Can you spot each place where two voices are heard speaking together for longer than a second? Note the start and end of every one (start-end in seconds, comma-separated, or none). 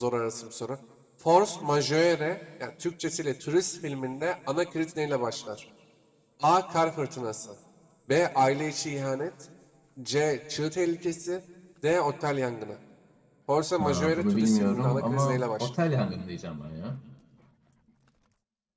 13.8-15.7